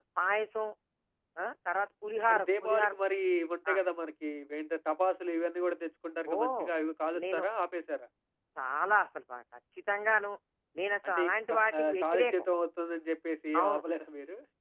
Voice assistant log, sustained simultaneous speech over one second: present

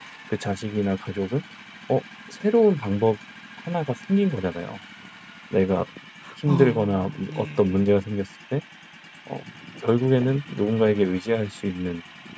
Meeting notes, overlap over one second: present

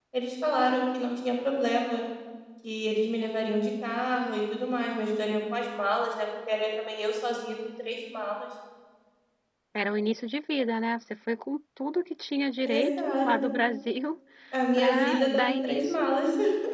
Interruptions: present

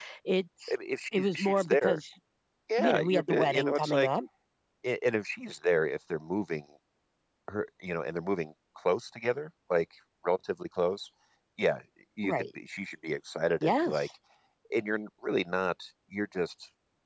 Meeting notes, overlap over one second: present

